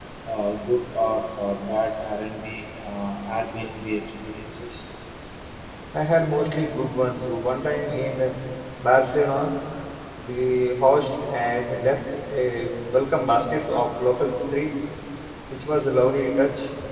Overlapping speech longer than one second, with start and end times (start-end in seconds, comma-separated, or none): none